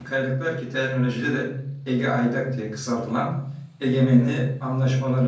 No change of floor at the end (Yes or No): Yes